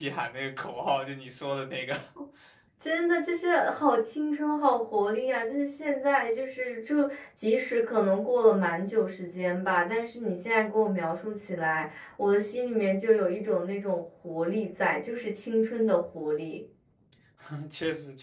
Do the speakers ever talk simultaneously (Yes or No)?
No